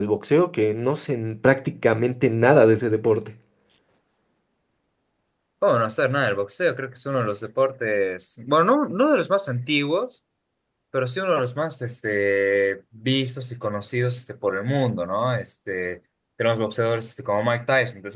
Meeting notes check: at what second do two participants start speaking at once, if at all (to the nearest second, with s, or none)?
none